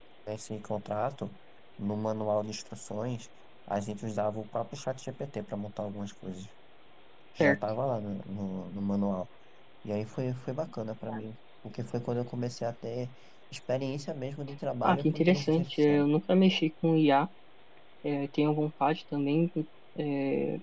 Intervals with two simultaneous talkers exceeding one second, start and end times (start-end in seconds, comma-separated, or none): 14.8-16.0